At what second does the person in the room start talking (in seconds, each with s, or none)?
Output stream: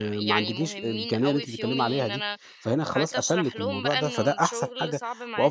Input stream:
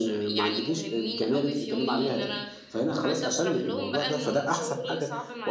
none